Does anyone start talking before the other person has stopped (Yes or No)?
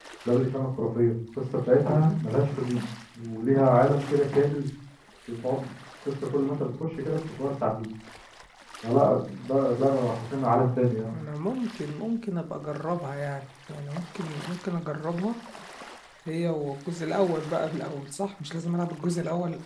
No